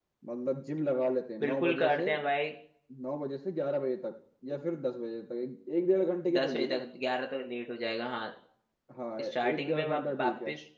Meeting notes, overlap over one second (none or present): present